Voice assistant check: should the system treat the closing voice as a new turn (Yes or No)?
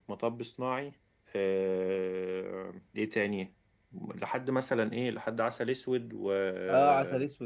Yes